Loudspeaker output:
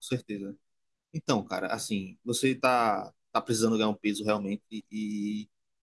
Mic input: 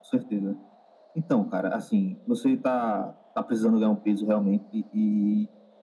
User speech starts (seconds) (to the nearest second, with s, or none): none